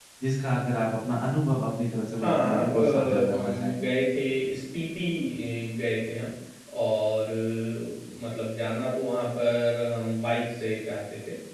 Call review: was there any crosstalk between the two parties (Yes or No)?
Yes